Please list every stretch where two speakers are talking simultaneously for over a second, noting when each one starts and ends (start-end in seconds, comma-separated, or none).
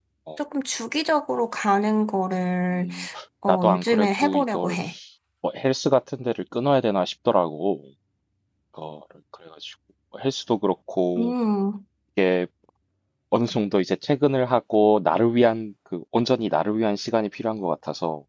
3.5-4.8